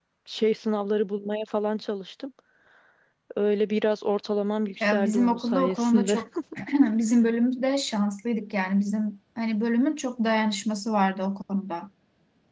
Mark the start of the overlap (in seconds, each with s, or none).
4.8 s